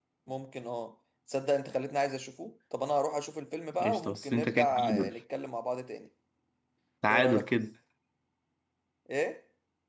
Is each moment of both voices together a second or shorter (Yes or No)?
No